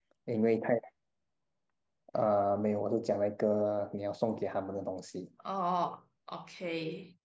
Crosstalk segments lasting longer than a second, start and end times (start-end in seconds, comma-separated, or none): none